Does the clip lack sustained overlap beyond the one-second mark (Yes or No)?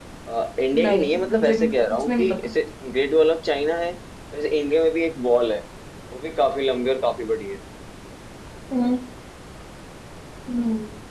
No